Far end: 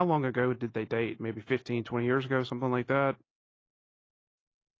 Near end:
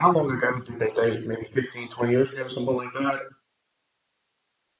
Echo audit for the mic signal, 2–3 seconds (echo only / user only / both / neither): echo only